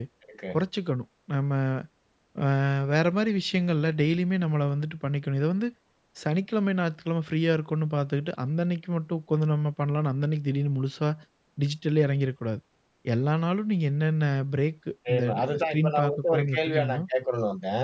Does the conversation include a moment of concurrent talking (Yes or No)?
Yes